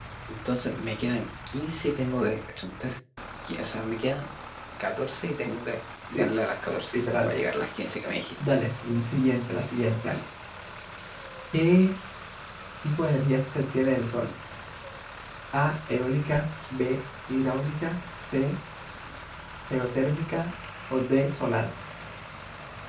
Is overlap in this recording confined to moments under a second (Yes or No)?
Yes